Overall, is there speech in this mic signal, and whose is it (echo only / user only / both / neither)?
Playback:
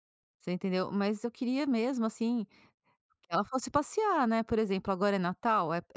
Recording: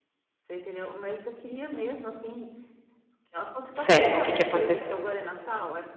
both